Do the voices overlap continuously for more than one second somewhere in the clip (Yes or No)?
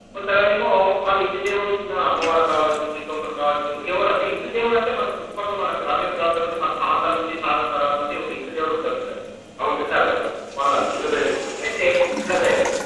No